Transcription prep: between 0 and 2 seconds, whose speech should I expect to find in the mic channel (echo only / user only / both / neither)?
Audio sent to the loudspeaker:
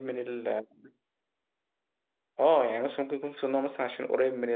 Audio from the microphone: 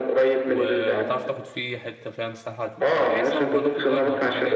both